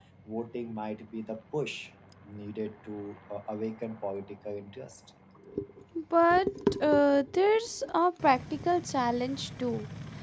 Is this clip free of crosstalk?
Yes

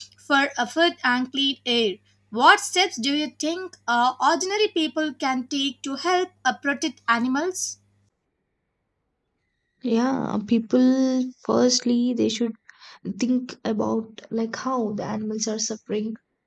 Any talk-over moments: No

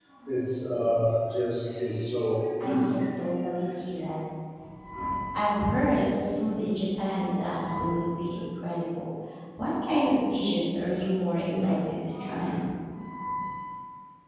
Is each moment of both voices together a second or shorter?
Yes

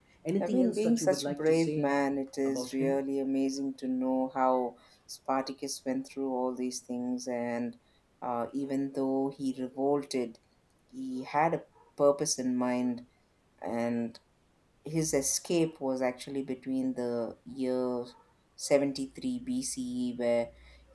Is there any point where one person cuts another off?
Yes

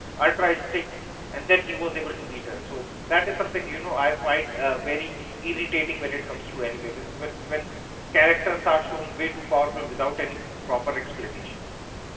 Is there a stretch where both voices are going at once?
No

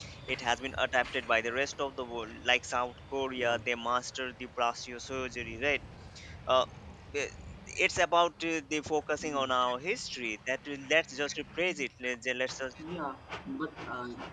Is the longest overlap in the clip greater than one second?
No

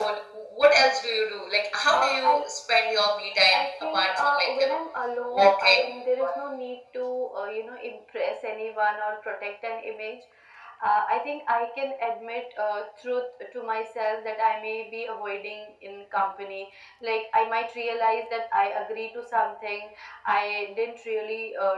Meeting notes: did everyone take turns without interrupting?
No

